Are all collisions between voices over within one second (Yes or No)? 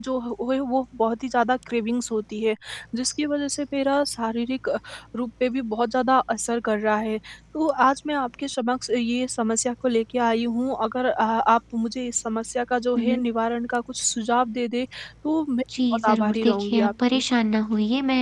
No